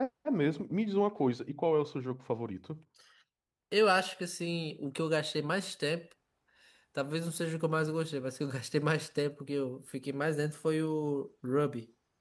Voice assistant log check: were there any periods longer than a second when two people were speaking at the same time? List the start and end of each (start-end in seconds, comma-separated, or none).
none